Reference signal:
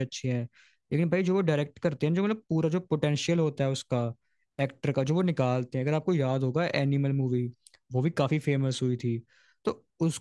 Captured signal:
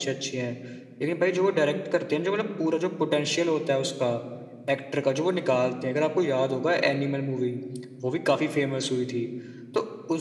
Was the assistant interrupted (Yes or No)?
No